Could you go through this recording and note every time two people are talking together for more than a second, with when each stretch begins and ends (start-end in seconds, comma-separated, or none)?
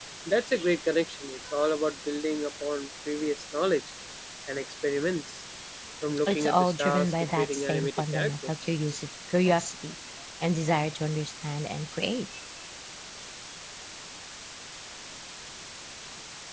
6.3-8.5